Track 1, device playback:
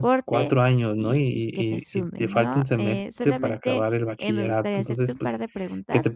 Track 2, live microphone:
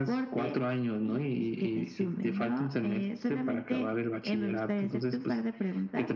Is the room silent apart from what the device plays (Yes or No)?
Yes